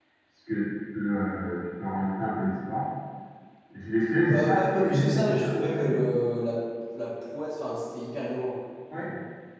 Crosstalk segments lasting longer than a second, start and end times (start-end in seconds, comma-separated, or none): 4.3-6.0